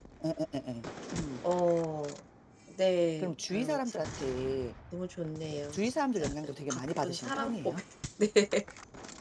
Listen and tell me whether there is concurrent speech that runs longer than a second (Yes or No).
Yes